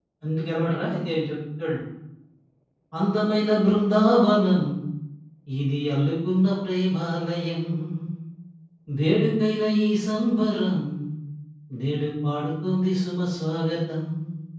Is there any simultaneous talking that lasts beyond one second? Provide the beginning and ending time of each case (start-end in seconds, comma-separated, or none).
none